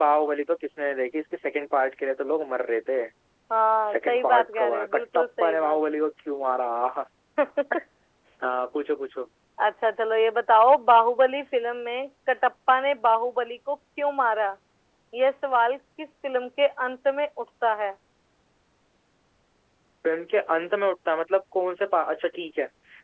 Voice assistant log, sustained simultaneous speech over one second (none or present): present